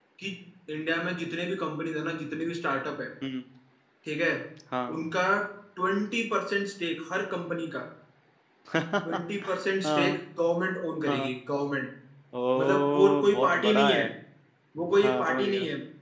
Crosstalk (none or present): present